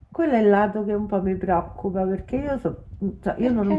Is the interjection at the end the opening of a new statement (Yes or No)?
No